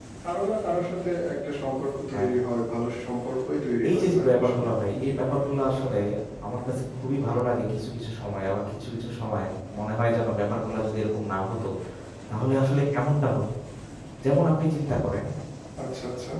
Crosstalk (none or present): present